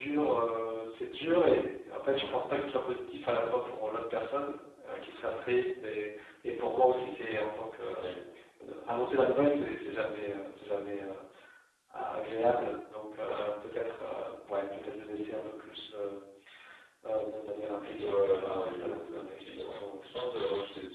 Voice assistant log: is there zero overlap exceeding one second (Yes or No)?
No